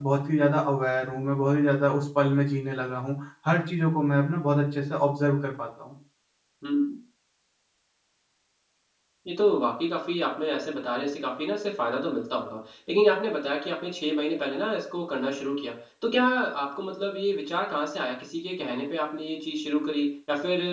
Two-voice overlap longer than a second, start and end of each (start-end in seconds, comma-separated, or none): none